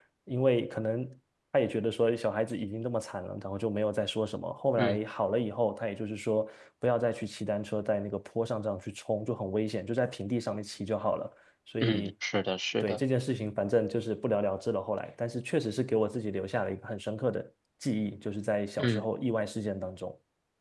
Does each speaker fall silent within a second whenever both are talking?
Yes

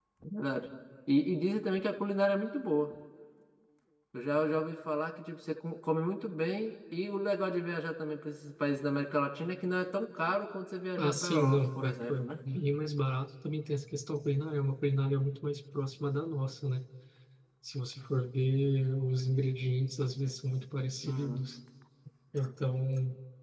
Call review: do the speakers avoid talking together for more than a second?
No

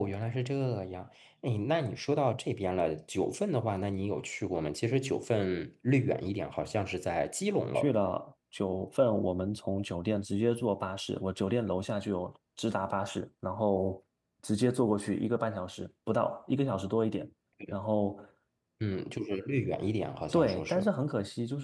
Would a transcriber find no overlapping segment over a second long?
Yes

